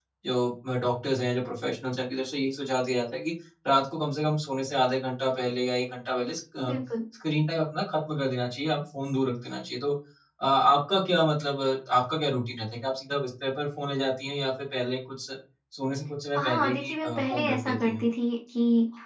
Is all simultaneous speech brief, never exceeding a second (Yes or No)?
No